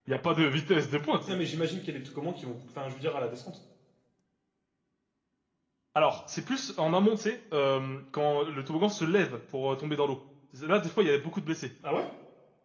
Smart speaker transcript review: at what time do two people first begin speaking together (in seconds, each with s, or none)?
none